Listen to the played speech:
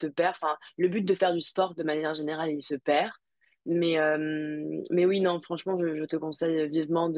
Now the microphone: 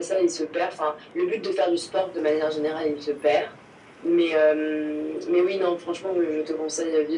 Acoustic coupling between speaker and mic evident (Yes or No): Yes